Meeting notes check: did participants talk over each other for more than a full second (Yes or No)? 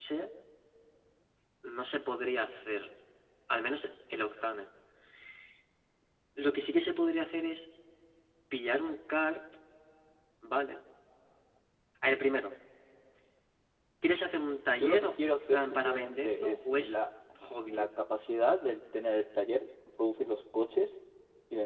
Yes